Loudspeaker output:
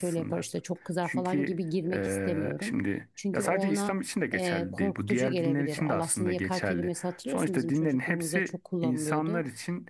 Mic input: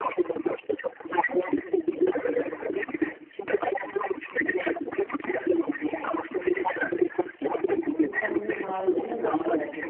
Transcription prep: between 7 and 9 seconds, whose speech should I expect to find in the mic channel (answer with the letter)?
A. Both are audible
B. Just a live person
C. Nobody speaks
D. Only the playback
A